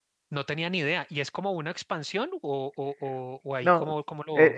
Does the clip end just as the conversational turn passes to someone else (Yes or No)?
Yes